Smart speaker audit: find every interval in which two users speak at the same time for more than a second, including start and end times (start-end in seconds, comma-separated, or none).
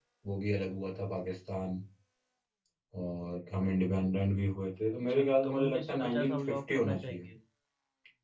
5.1-7.2